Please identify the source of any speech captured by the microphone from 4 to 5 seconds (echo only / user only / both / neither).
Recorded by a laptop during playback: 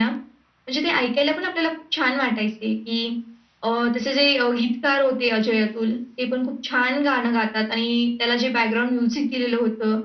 echo only